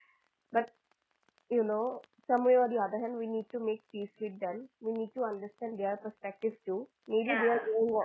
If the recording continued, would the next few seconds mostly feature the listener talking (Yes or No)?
No